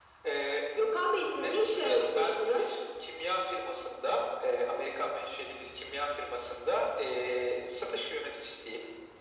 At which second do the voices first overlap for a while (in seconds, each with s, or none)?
1.2 s